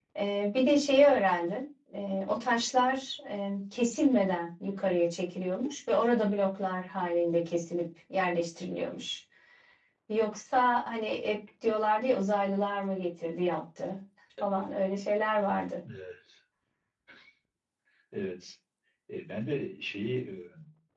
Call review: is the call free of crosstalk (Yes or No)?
Yes